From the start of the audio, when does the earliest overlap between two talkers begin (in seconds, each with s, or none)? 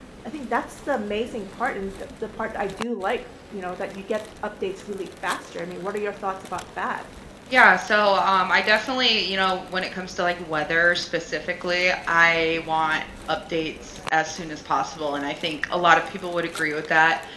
none